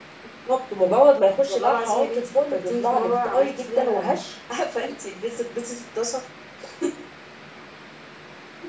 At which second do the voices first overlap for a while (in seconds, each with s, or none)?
1.5 s